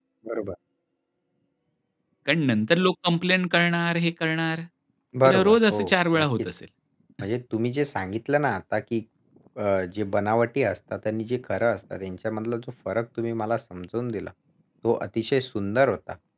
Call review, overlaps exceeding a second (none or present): present